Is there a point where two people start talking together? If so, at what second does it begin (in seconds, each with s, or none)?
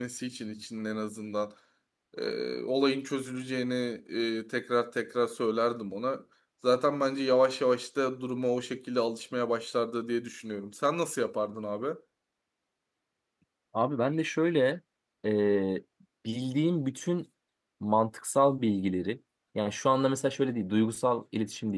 none